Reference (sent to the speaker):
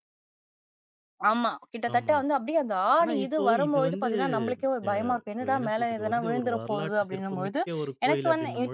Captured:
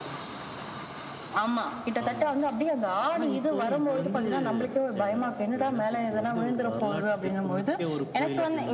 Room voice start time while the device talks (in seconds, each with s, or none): none